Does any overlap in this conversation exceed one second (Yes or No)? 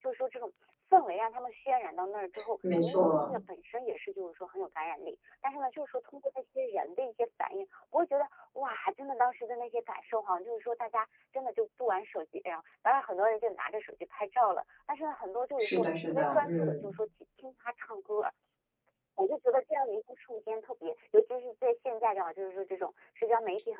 Yes